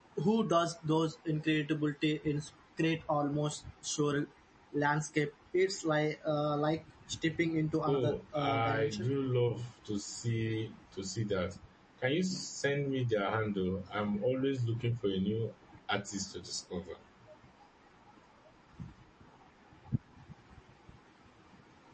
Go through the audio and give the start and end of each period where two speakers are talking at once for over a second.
7.9-9.1

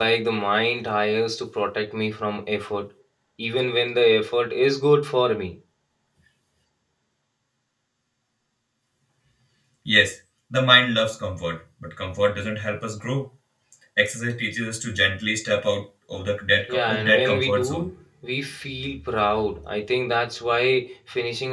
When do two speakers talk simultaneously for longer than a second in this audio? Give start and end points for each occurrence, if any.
16.7-17.9

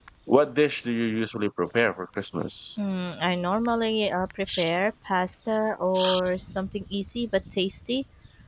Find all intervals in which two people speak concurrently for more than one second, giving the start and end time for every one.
none

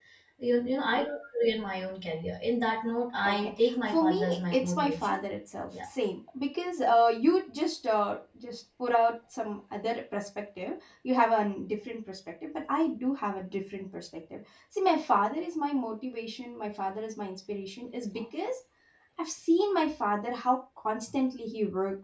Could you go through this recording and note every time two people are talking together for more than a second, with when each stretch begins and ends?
3.2-5.2

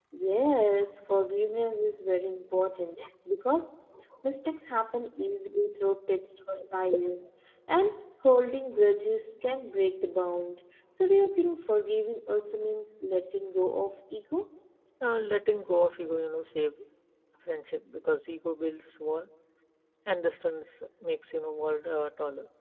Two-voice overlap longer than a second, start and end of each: none

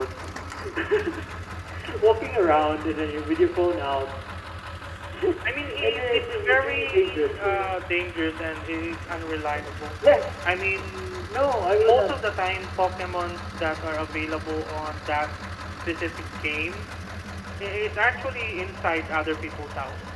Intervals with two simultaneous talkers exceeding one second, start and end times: 5.8-7.7

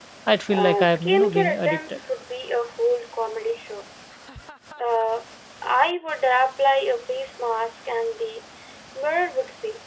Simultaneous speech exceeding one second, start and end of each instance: 0.5-2.0

